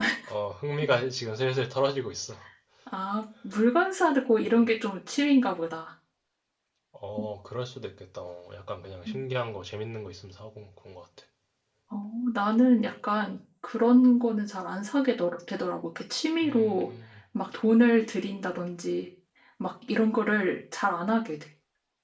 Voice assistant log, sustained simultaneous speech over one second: none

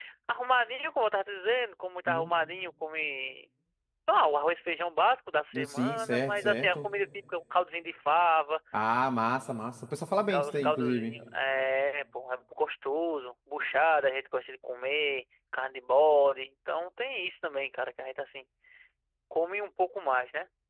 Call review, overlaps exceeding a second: present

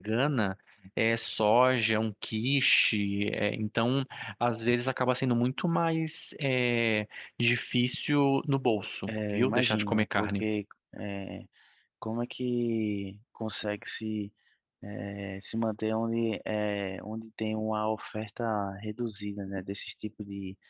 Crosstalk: present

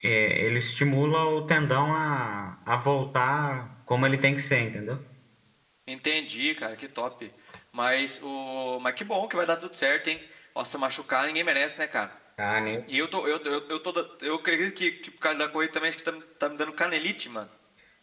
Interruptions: none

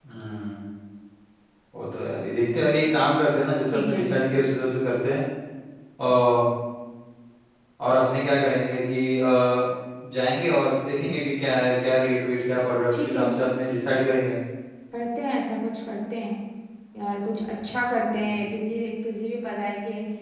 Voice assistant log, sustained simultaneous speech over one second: none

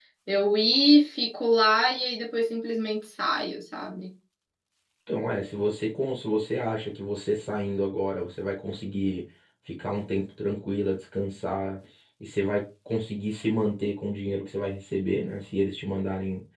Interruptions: none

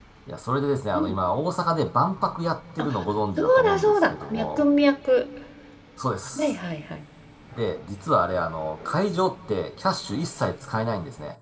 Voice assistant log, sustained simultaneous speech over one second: present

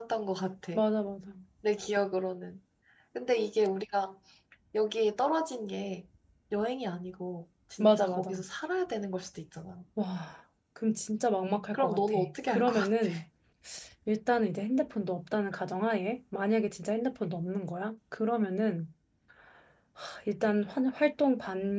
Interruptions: present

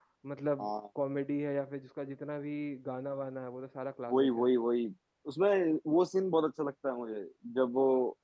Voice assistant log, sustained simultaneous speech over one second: none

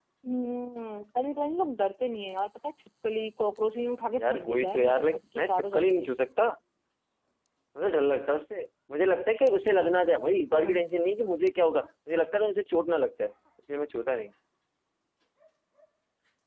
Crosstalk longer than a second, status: present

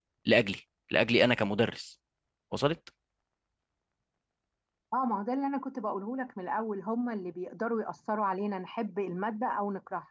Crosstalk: none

